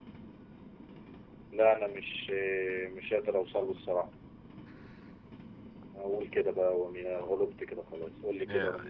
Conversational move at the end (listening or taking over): taking over